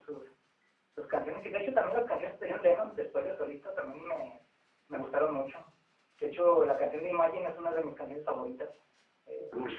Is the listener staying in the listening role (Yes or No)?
No